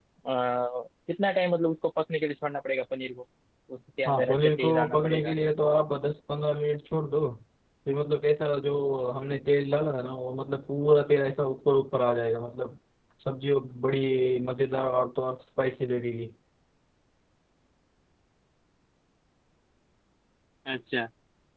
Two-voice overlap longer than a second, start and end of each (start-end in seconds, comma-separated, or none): 4.0-5.3